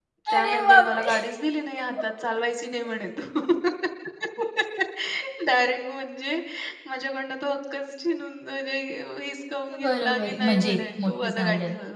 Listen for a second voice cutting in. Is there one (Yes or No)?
Yes